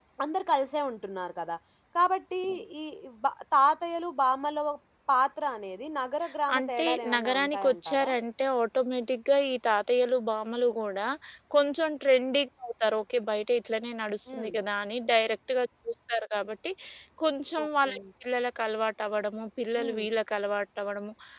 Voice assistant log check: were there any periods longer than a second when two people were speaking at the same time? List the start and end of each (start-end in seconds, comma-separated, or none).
6.5-8.1